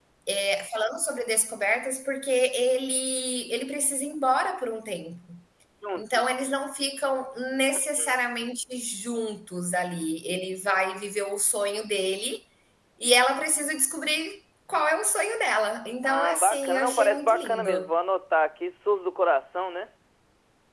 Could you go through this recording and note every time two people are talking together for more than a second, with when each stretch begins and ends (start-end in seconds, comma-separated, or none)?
16.0-17.9